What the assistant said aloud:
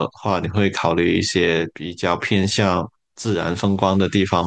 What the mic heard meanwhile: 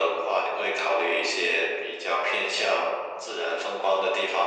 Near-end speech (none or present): none